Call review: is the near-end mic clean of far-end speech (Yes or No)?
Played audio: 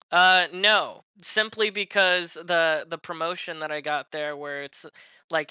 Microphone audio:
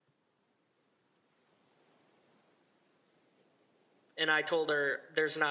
Yes